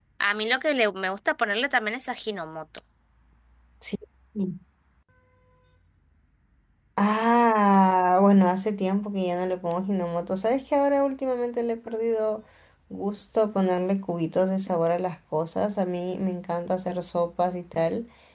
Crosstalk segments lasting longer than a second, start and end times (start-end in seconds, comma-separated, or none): none